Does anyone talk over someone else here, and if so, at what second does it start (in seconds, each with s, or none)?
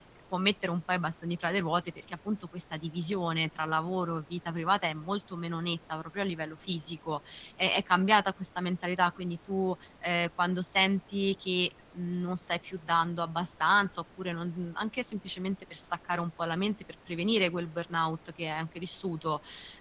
none